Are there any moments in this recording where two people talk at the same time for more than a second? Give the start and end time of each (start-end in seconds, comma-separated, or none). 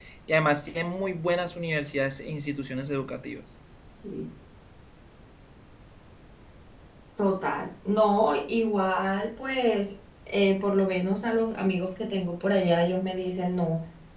none